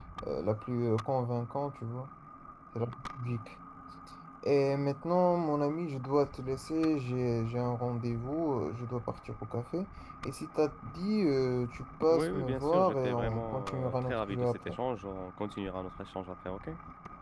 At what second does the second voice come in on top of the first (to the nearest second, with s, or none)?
12 s